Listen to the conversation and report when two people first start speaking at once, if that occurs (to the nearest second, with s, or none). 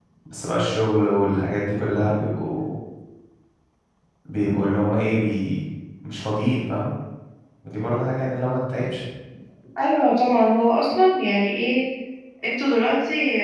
none